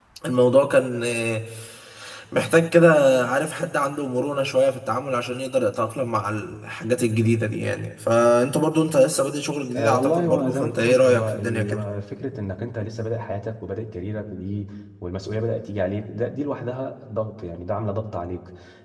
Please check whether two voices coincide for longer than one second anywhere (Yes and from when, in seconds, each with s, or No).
Yes, from 9.7 s